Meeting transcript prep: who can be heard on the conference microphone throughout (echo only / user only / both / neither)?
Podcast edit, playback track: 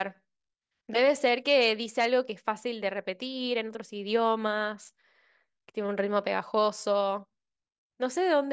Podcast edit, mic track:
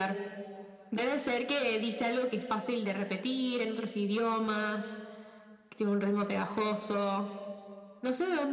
echo only